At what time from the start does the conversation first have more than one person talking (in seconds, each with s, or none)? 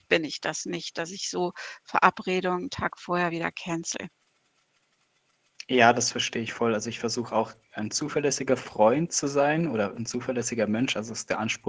none